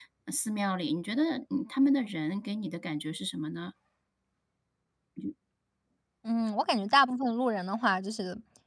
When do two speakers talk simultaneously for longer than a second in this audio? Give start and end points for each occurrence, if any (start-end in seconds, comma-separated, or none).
none